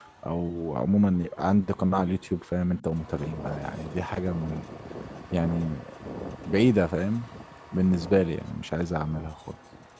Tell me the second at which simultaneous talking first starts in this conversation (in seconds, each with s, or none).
none